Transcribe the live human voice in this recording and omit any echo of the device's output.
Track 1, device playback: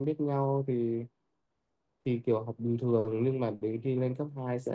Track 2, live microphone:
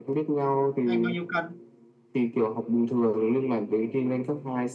anh bao nhiêu cân

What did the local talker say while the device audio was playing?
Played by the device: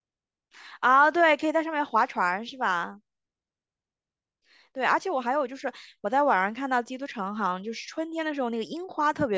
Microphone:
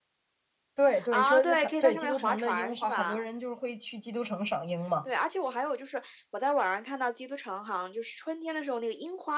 对对，说很对基督城的樱花，很多人就是会去基督城赏樱嘛。

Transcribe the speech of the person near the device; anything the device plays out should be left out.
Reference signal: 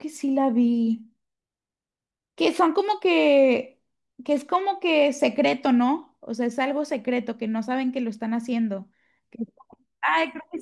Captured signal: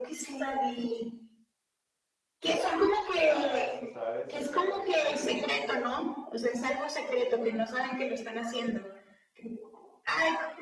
varas, ¿sabes? Acá de que

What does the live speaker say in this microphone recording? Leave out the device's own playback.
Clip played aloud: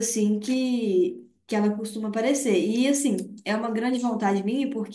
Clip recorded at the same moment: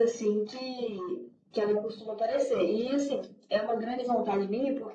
none

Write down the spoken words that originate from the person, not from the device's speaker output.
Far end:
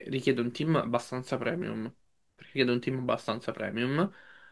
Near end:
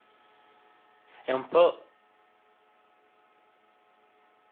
È un po',

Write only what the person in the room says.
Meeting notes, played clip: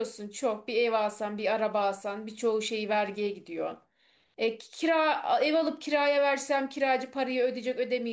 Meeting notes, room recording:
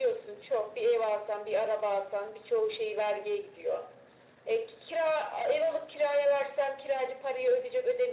none

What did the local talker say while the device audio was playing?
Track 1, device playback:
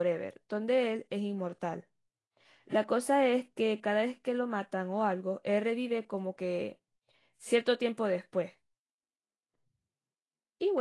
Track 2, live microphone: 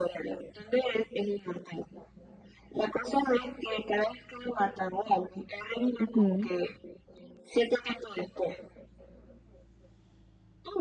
Ujú.

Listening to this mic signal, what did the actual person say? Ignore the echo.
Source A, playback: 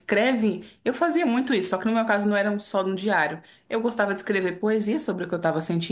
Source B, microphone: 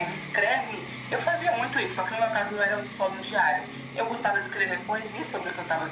none

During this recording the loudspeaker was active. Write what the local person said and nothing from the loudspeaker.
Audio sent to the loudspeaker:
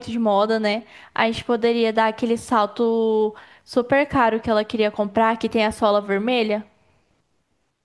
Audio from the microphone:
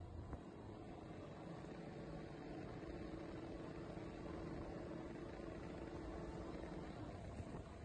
none

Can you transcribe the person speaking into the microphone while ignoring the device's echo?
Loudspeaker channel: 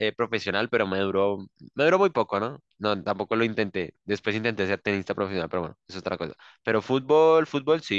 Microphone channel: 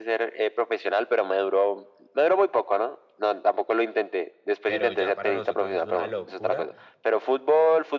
Pero ya para nosotros es una locura.

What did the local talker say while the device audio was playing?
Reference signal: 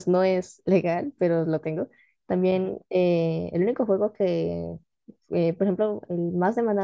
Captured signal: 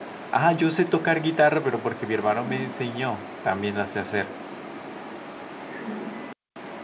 Ah, yo sé tocar guitarra, pero porque mi hermano me enseñó, también la sé hacer.

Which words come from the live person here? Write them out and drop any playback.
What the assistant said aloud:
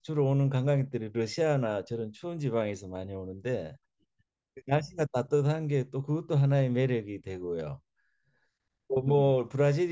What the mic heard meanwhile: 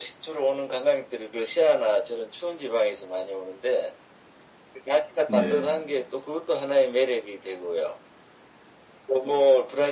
네,

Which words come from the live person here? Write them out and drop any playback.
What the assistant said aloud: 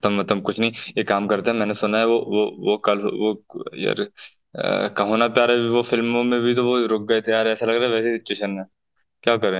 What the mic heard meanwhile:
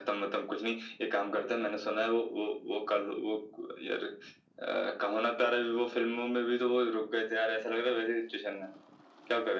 none

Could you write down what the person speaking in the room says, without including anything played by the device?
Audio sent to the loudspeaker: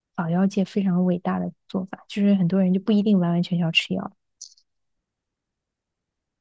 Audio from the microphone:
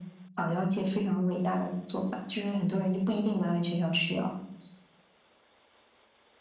none

